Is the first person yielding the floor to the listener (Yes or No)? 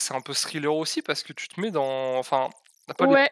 Yes